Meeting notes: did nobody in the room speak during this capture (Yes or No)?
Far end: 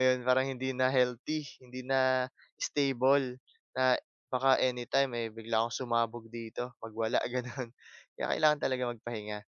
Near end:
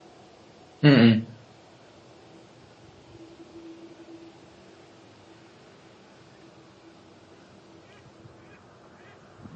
No